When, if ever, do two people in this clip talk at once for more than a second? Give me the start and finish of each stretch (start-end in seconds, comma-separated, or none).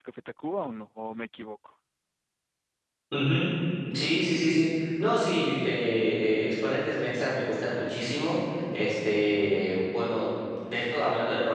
none